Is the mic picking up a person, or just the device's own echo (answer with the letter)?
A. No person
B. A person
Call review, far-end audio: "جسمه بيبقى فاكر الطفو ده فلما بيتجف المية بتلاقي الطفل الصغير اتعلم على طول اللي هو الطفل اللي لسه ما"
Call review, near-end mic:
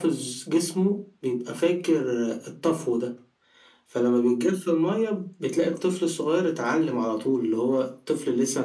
A